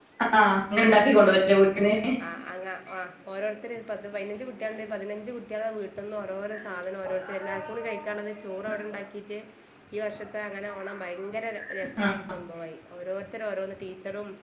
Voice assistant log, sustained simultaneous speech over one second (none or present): none